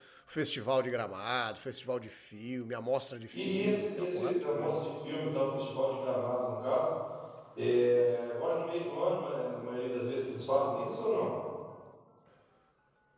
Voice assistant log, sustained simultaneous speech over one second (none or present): present